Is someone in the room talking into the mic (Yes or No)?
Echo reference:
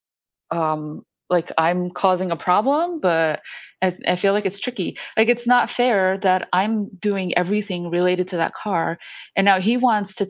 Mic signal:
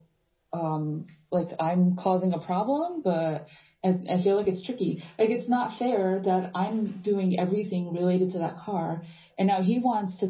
No